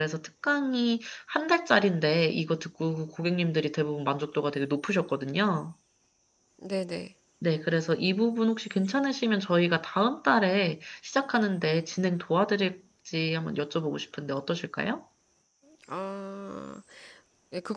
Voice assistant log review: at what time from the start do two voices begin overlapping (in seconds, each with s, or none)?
none